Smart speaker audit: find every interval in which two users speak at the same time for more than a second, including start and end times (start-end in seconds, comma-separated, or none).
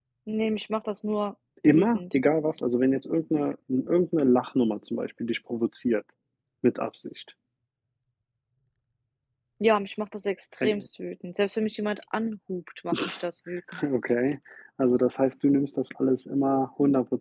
none